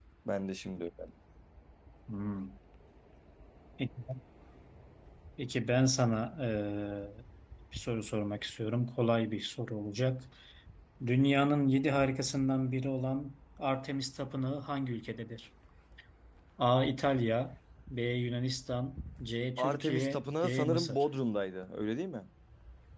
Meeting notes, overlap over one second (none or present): present